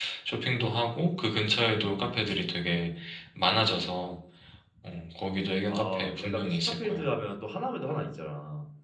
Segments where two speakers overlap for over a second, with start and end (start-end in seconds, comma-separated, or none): 5.7-7.0